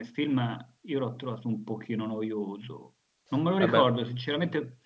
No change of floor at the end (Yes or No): Yes